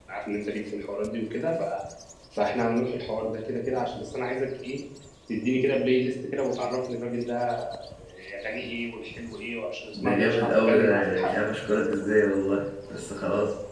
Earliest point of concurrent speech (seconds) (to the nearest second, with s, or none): 10 s